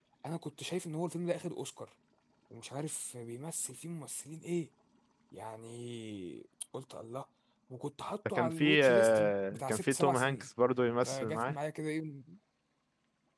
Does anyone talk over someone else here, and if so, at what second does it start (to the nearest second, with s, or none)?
8 s